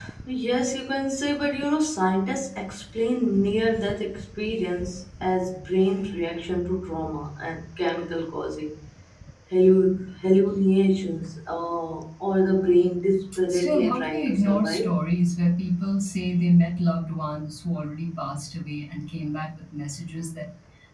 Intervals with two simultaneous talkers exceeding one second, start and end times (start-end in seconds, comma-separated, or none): 13.5-14.9